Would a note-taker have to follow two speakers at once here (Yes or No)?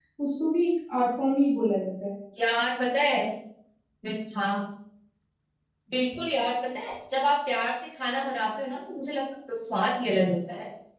No